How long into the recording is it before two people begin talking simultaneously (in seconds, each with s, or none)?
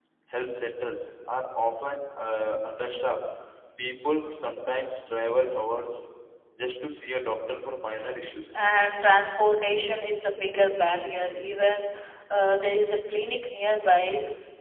none